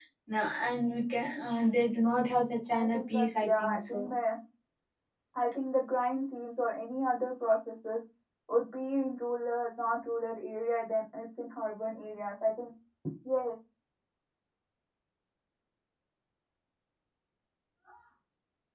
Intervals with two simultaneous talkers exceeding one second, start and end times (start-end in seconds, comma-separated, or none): 2.7-4.1